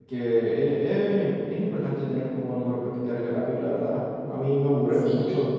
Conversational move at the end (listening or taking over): listening